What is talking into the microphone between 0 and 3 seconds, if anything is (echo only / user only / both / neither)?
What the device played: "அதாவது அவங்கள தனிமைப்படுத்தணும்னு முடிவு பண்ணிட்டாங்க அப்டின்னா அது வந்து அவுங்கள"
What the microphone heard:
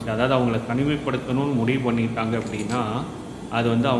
echo only